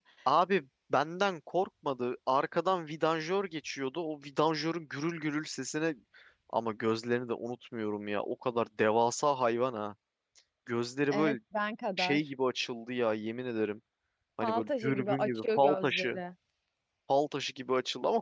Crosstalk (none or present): present